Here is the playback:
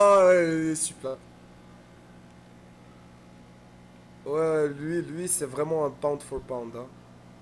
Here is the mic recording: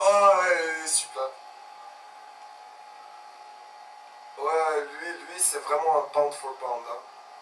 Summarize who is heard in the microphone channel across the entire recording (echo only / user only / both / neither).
echo only